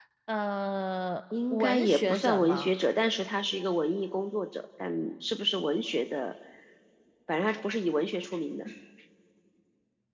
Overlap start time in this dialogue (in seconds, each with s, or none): 1.3 s